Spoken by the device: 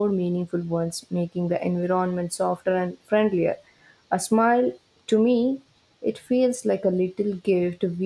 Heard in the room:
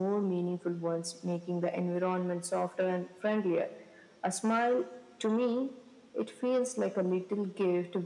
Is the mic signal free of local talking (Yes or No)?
Yes